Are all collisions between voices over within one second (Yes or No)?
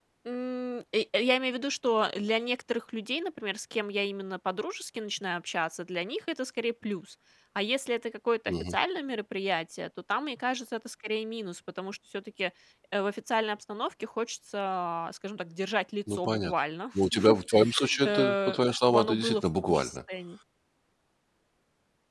No